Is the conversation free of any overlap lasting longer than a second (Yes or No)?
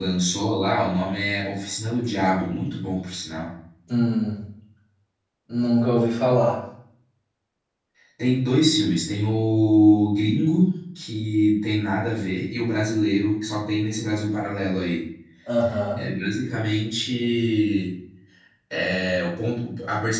Yes